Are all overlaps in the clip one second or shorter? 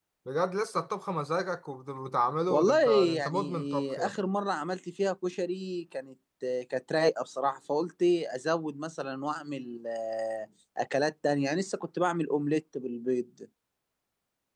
No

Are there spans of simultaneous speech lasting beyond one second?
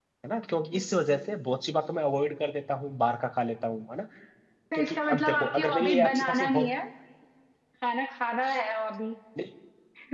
Yes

